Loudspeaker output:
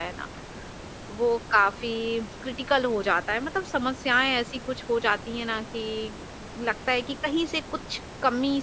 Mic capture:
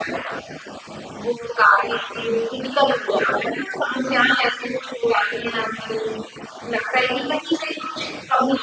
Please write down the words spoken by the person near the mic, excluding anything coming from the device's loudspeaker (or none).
none